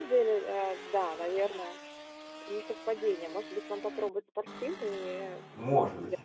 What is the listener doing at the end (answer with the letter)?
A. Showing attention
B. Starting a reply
B